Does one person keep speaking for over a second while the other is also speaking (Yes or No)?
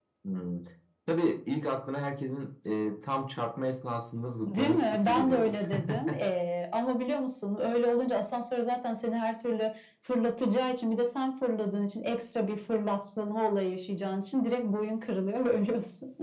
Yes